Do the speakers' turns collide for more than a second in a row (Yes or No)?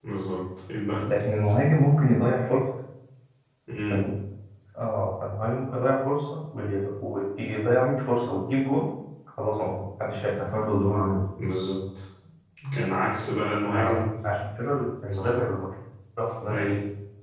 No